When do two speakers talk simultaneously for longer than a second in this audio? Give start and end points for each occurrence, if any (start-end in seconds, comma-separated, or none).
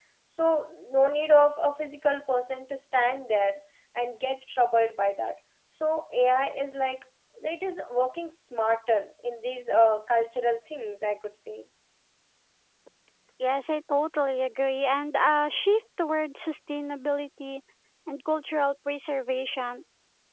none